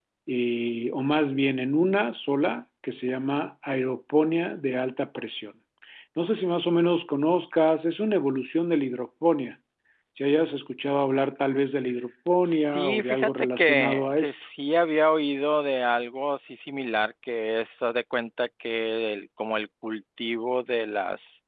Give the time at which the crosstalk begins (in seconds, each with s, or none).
12.4 s